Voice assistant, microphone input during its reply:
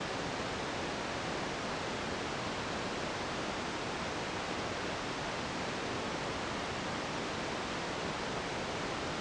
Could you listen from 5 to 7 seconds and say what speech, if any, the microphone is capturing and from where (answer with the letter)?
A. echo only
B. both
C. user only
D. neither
D